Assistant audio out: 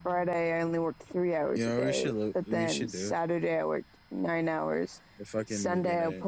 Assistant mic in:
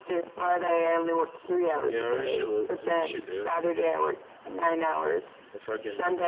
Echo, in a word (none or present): present